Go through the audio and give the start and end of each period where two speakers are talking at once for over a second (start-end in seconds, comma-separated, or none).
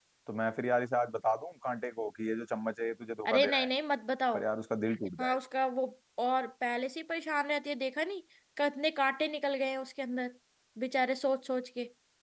none